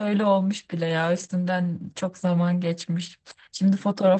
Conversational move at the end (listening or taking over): listening